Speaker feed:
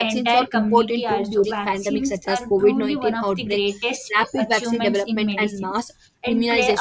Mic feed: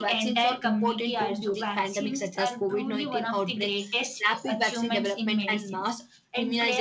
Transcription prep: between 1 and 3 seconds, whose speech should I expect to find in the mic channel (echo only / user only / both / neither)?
echo only